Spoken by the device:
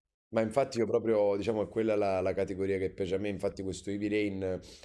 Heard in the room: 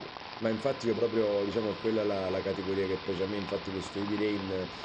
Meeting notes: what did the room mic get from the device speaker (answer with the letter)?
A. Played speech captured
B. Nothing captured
A